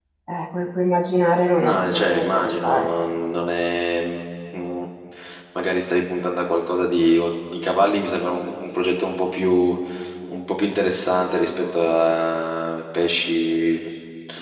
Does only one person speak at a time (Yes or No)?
No